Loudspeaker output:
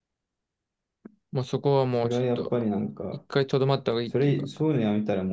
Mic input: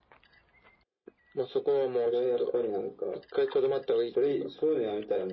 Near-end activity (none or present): none